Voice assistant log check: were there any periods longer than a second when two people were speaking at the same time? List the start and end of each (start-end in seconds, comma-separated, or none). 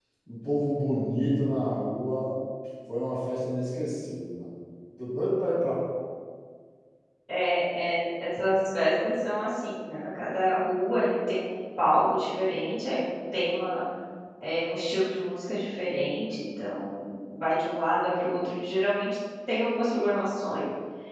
none